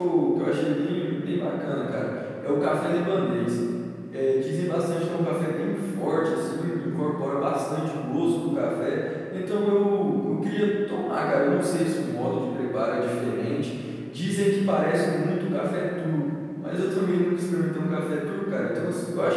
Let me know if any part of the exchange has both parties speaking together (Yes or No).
No